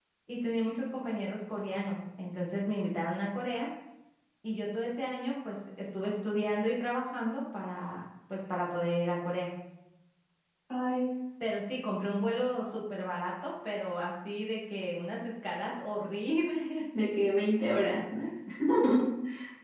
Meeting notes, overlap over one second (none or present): none